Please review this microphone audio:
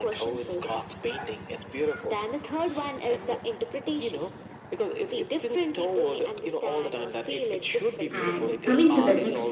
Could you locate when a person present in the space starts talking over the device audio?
8.1 s

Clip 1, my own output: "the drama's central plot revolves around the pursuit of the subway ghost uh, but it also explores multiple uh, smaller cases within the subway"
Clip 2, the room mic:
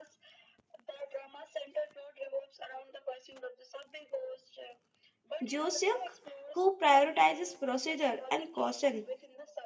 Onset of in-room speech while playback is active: 5.4 s

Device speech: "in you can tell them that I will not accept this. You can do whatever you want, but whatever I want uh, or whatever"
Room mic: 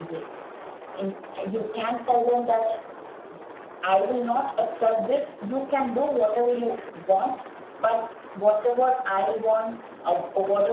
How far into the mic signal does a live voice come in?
none

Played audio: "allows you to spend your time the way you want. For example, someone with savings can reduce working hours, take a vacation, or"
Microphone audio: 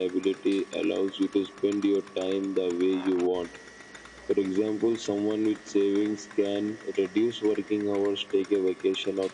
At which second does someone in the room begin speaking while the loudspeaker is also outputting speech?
none

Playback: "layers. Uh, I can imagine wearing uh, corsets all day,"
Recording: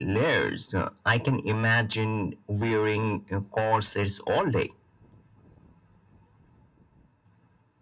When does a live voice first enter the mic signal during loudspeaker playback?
none

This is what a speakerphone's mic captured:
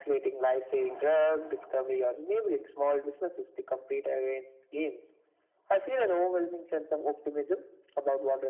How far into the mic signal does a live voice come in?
none

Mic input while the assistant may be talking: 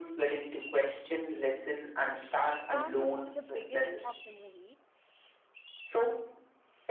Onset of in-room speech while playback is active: 2.6 s

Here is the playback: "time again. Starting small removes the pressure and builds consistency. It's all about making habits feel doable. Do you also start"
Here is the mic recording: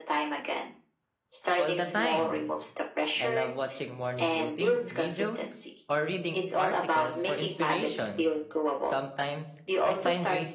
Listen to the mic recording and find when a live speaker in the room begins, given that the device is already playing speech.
1.6 s

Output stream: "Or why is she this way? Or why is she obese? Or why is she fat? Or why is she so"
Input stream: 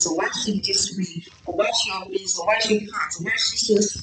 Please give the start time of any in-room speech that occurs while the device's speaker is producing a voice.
none

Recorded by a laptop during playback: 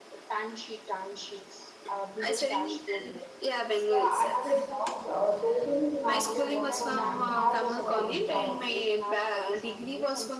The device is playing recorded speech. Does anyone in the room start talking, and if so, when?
3.9 s

